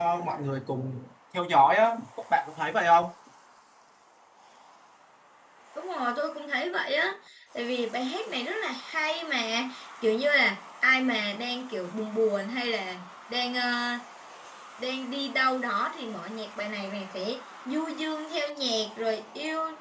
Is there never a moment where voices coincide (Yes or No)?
Yes